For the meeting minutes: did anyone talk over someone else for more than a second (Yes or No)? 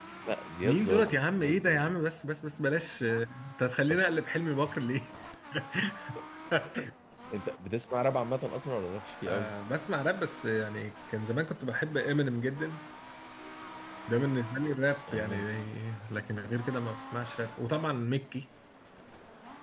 Yes